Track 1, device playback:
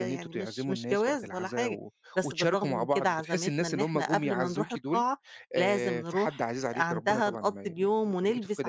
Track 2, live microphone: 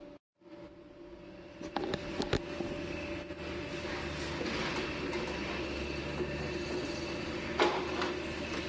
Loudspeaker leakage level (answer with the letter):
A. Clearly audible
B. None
B